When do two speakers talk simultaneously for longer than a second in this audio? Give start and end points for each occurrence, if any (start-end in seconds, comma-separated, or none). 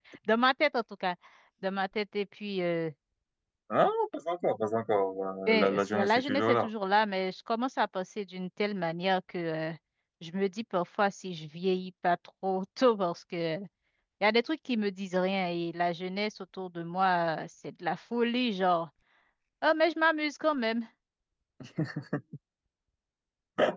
5.5-6.7